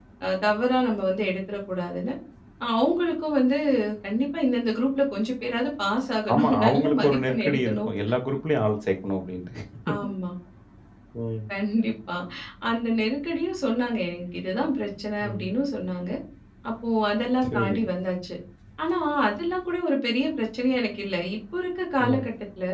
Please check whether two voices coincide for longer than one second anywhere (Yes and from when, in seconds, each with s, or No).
Yes, from 6.3 s